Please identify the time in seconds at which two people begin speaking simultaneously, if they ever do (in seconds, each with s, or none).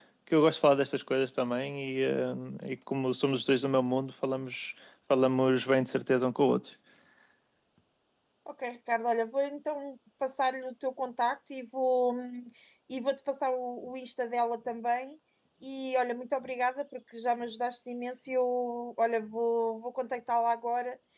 none